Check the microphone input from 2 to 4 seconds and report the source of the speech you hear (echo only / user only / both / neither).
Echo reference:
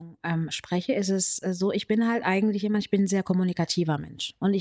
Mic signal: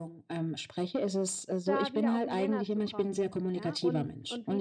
both